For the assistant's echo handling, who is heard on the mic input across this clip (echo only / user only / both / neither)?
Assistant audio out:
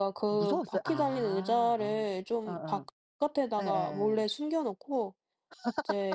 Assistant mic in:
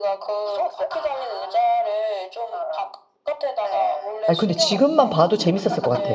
both